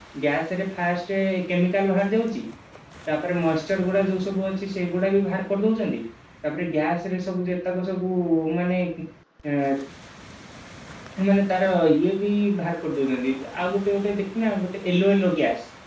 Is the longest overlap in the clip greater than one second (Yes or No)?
No